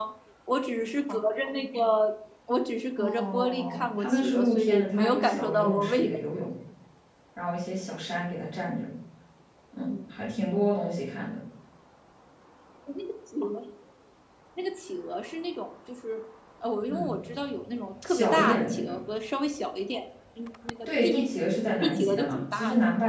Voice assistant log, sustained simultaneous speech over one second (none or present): present